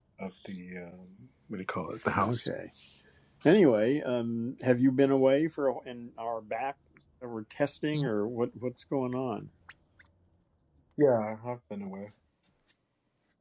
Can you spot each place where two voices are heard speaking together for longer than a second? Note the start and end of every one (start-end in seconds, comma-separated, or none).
none